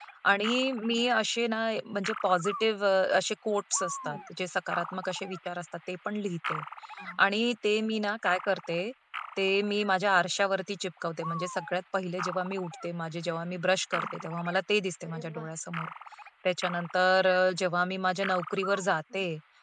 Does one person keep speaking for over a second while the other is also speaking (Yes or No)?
No